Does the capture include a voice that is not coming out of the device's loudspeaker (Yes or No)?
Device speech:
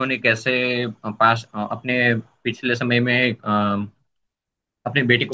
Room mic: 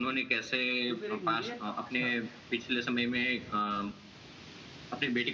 Yes